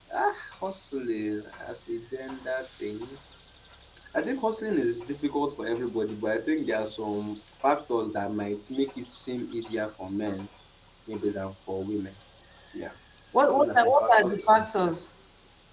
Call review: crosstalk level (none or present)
present